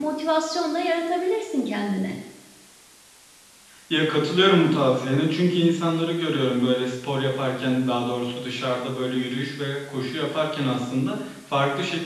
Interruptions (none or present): none